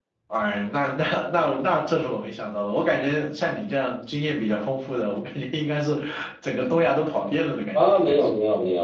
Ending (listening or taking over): taking over